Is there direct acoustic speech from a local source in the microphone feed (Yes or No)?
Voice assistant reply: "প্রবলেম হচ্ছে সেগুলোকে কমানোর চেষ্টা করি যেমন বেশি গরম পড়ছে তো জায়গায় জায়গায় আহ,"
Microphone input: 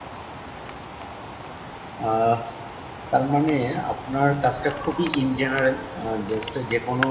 Yes